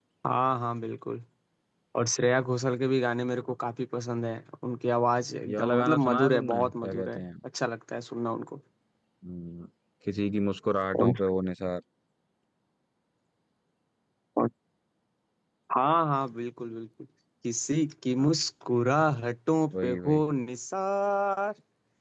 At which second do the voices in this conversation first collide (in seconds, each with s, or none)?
5.5 s